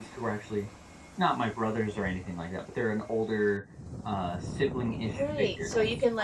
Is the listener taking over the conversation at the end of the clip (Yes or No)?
Yes